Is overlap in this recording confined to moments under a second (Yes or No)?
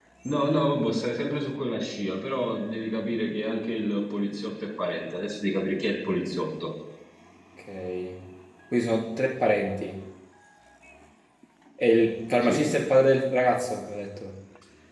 Yes